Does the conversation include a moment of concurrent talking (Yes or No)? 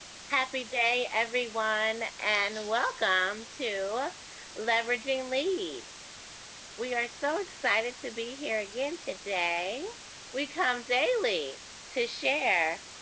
No